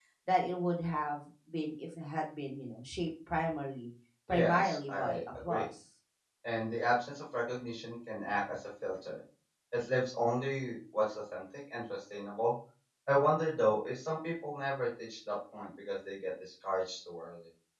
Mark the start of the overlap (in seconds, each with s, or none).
4.3 s